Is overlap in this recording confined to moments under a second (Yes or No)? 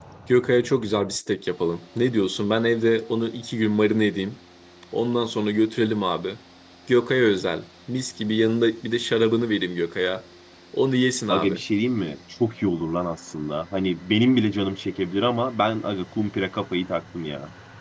Yes